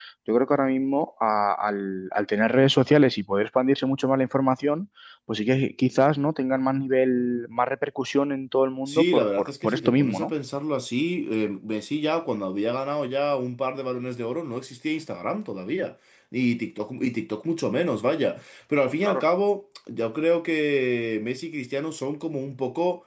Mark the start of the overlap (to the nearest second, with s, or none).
9 s